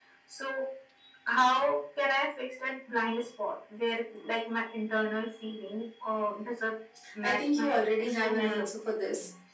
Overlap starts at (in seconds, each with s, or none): 7.2 s